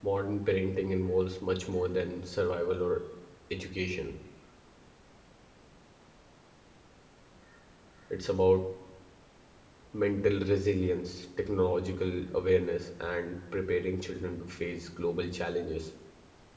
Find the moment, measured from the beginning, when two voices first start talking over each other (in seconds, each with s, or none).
none